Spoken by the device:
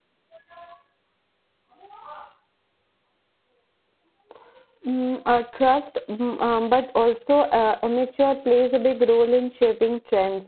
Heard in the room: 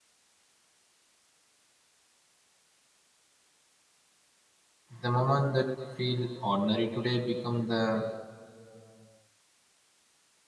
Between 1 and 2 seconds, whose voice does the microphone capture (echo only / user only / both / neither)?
neither